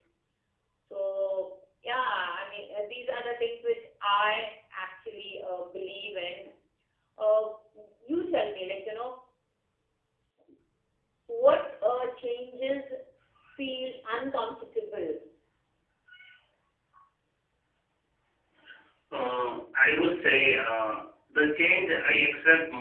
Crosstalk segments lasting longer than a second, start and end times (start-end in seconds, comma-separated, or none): none